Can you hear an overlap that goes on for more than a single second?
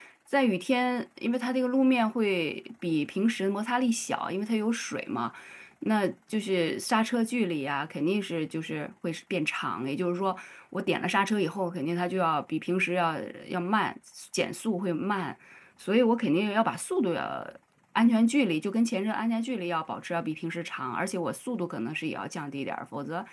No

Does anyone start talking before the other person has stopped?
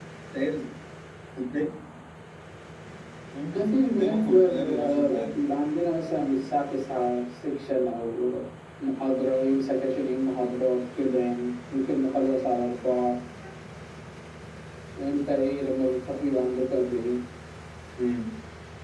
Yes, from 4.0 s

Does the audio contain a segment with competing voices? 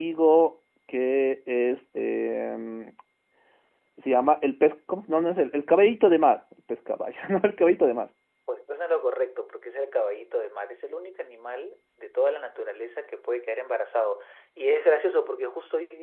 No

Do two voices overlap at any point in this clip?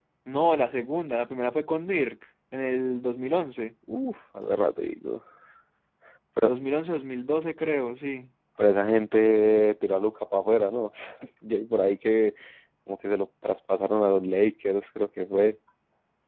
No

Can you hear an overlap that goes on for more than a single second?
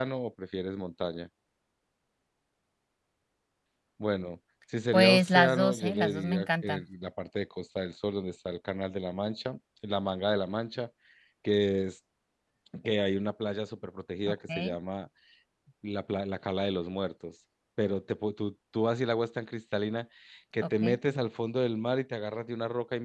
Yes, from 4.9 s

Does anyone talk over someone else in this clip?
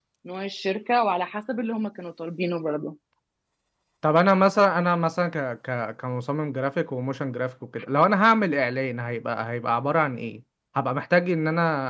No

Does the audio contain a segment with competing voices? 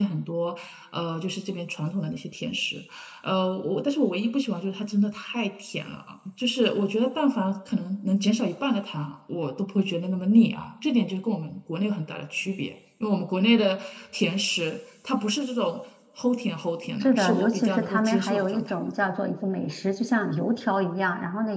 Yes, from 17.0 s

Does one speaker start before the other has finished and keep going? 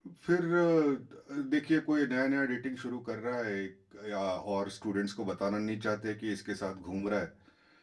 No

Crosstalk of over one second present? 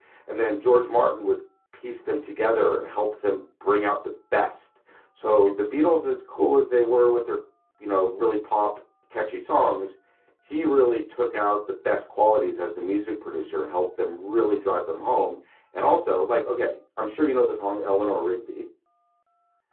No

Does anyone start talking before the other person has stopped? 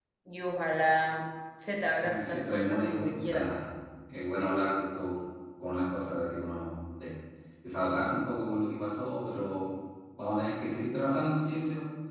Yes, from 2.0 s

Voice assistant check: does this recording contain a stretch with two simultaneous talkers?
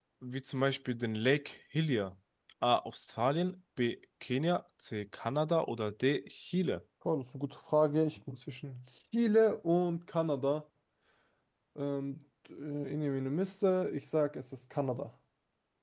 No

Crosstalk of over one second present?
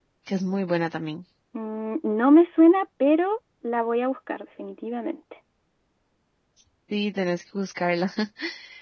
No

